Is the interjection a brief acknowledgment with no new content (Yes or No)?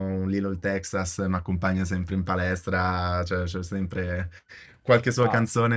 Yes